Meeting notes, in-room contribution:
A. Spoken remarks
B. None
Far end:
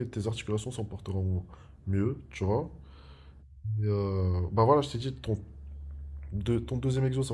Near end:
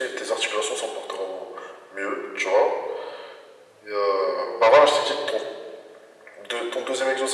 B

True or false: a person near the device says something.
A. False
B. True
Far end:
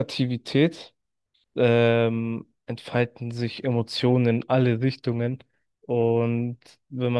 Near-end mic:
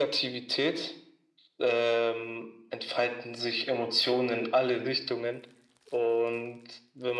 A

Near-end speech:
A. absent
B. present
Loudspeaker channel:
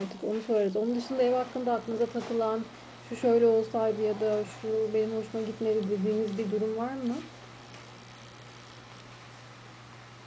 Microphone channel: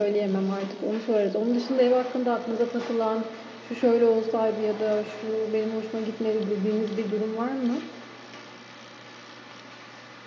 A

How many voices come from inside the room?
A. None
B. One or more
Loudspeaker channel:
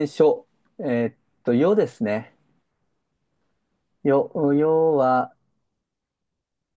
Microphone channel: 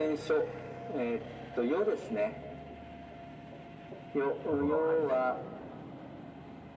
B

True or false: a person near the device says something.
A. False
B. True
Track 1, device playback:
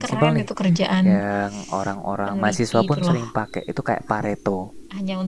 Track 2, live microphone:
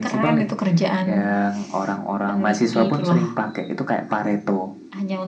A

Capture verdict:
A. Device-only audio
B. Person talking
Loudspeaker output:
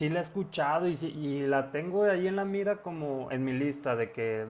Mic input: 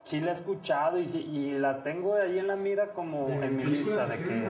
B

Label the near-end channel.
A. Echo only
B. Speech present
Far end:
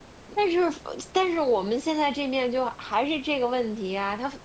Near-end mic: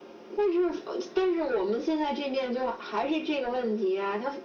A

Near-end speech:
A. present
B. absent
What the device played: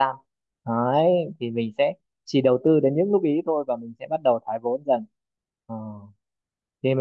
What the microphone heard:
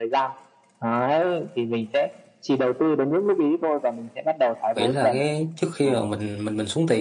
A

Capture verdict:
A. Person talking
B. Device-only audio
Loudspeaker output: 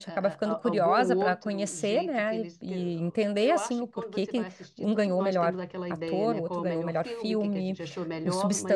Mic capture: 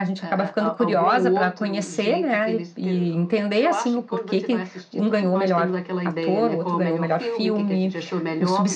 B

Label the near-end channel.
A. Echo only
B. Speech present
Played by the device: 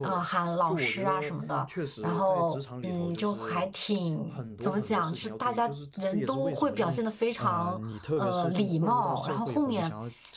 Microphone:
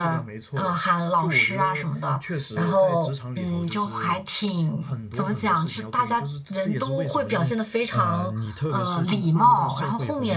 A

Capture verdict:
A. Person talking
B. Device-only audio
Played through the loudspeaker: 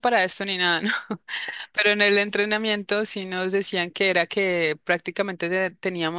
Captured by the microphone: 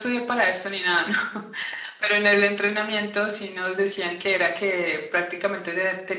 B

